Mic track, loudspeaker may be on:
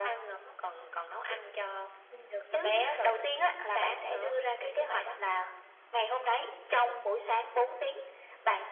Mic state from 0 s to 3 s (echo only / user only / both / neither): echo only